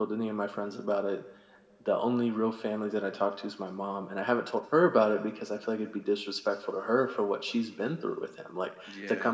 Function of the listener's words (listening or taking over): listening